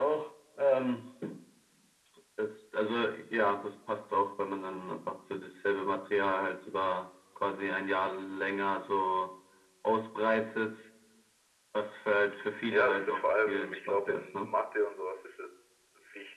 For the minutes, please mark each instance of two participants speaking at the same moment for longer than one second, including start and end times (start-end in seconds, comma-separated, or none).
12.7-14.5